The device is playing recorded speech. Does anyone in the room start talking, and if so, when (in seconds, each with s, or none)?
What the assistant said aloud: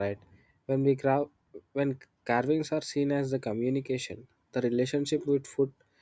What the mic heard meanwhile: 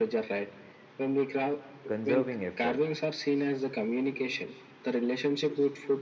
1.9 s